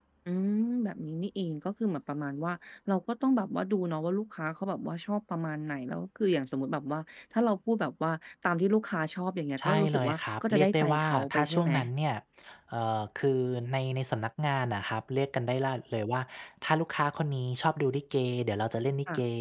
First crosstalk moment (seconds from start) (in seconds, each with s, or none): 9.6 s